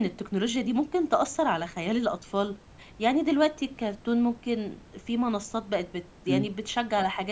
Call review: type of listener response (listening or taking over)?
listening